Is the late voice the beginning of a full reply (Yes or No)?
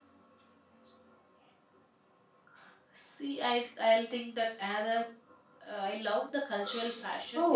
Yes